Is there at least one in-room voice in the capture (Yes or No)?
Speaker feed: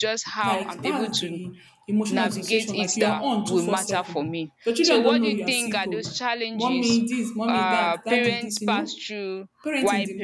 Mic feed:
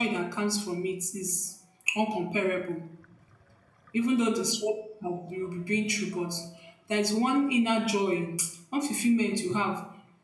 Yes